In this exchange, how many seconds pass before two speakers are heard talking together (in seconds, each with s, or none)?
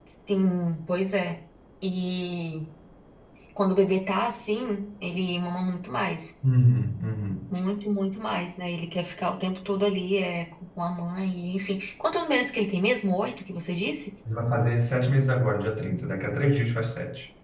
none